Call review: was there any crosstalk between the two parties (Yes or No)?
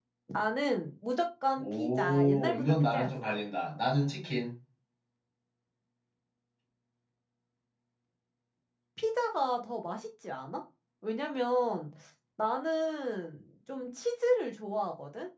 Yes